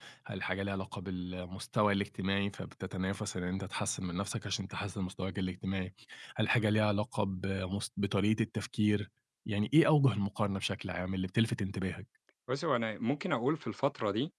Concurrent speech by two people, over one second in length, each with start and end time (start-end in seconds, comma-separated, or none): none